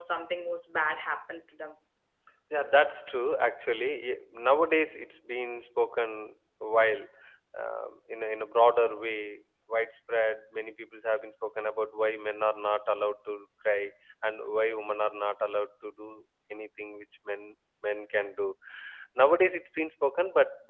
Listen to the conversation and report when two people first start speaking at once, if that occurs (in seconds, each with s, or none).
none